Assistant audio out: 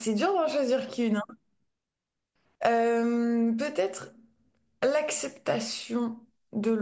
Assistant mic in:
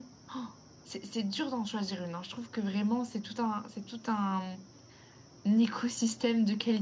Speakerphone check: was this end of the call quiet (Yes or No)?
No